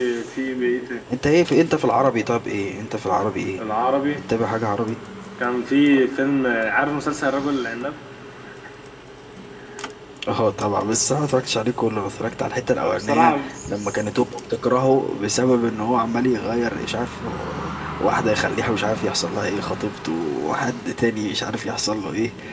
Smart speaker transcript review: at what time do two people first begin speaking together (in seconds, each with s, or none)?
12.8 s